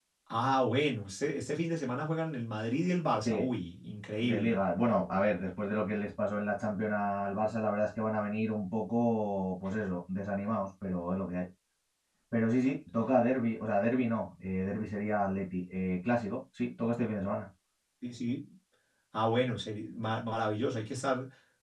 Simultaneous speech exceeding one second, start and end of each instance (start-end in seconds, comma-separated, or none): none